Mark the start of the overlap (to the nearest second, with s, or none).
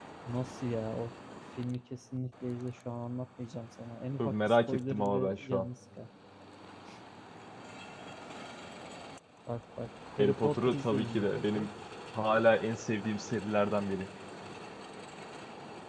4 s